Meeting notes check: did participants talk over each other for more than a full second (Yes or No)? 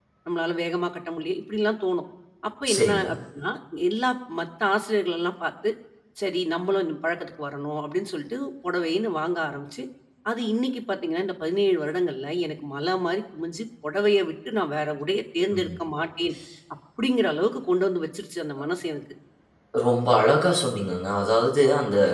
No